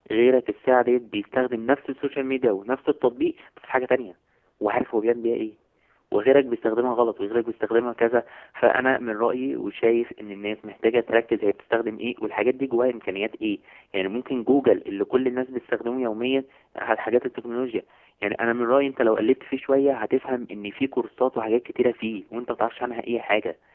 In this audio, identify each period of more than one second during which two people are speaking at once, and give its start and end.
none

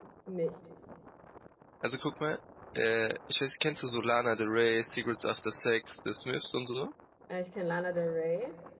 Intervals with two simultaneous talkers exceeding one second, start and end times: none

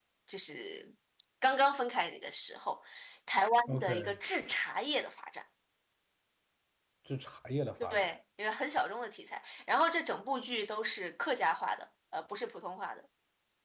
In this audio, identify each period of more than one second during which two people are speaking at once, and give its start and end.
none

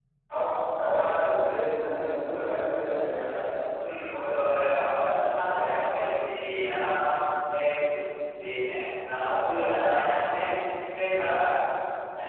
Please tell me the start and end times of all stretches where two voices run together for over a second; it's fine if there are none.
none

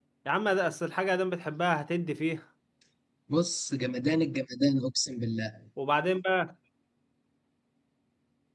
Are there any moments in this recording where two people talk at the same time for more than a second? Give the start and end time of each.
none

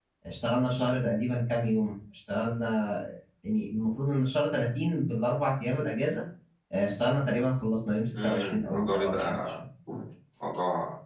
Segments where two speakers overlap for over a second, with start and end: 8.2-9.5

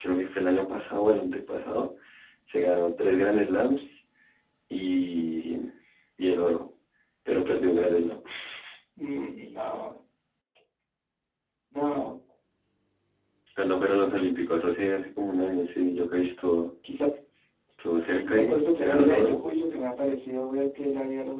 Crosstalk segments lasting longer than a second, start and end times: 18.2-19.4

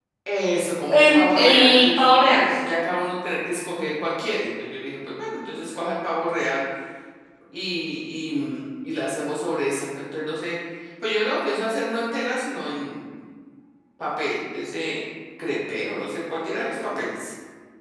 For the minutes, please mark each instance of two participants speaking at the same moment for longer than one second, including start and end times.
0.9-2.1

